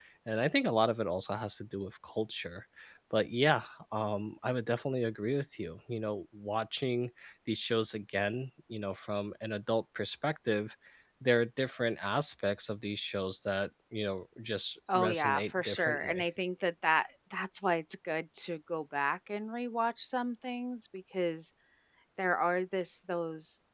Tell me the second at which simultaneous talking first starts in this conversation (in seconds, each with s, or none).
14.9 s